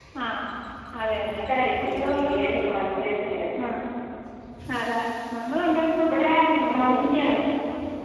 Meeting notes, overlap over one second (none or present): present